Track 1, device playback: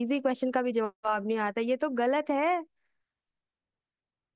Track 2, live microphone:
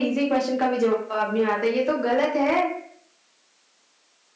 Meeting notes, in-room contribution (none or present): none